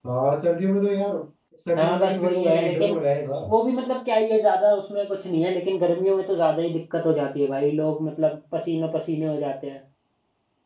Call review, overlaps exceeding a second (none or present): present